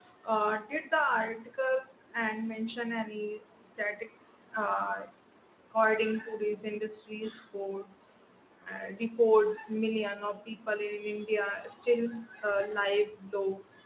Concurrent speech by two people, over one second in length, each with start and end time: none

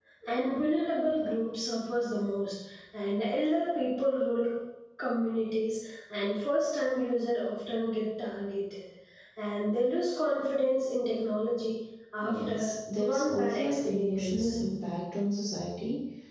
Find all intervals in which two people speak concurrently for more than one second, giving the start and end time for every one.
13.1-14.4

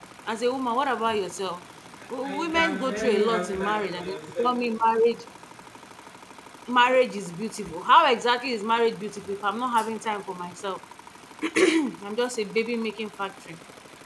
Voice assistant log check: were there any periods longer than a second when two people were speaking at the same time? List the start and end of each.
2.2-4.5

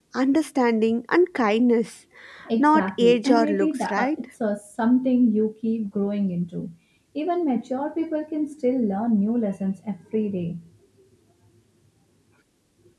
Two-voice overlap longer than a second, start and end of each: 2.6-4.1

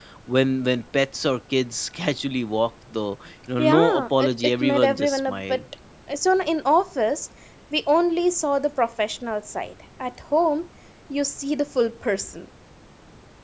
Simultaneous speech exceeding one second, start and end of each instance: 3.6-5.6

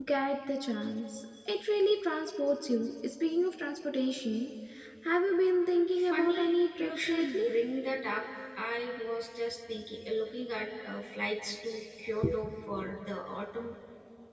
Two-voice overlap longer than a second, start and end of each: 6.1-7.4

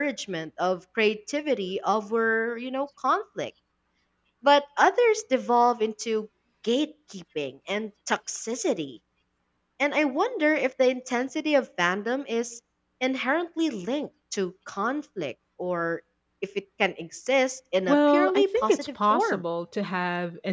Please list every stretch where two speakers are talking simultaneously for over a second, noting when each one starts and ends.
17.9-19.4

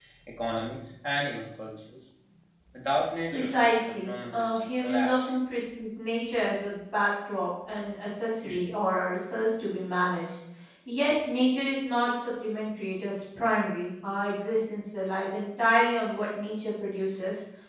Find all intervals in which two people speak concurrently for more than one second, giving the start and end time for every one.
3.3-5.3

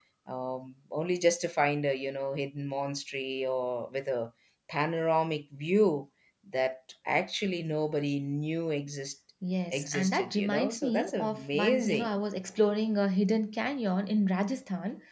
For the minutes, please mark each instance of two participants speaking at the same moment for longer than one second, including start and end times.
9.7-12.2

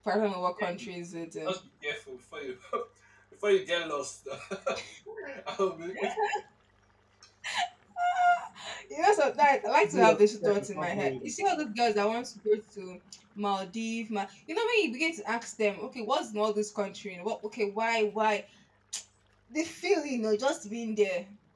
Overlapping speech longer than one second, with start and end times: 9.6-11.3

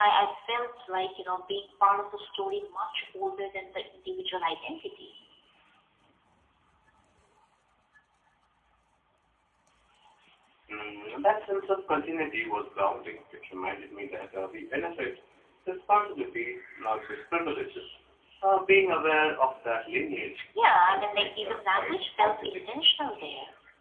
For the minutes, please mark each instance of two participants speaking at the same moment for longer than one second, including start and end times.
20.7-22.6

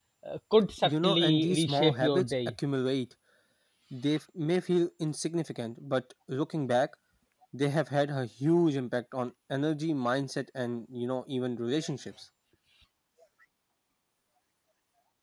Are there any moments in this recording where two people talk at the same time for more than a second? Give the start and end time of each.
0.8-2.3

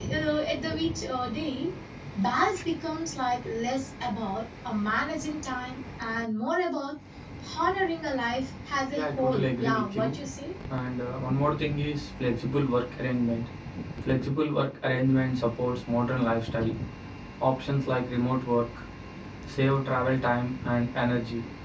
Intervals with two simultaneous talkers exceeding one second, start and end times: 8.9-10.1

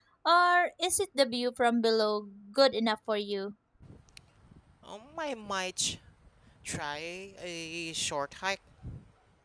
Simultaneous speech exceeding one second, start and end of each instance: none

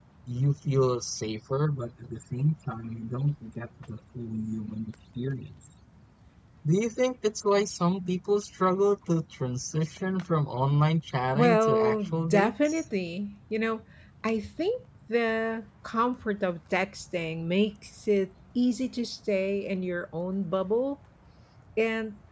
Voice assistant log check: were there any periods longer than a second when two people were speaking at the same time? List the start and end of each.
11.3-12.8

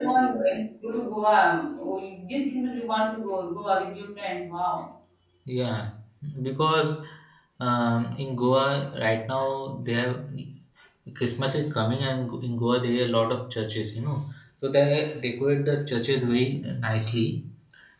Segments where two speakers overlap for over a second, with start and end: none

